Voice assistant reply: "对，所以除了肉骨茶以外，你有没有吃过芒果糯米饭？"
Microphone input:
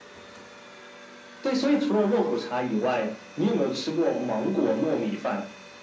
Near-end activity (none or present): none